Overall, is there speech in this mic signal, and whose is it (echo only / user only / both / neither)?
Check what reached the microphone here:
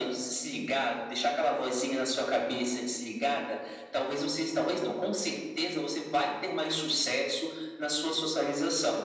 echo only